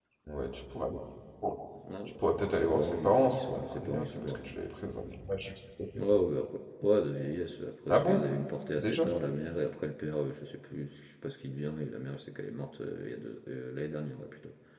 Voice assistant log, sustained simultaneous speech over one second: present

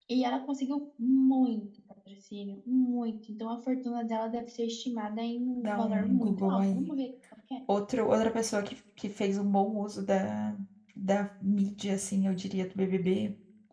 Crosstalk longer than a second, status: present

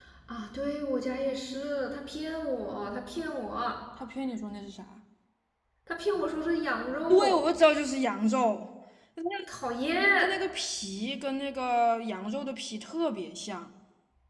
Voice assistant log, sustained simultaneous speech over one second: none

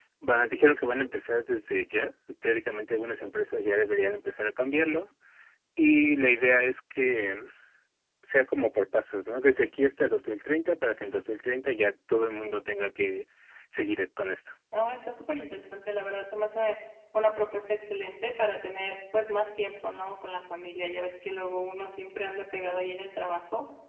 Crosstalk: none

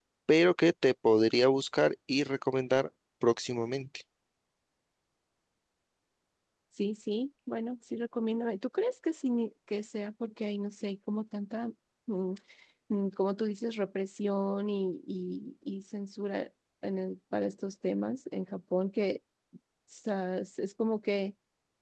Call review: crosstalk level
none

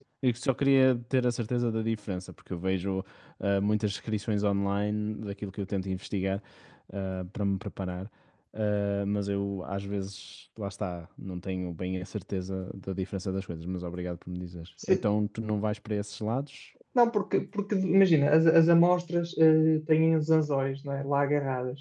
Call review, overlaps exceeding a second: none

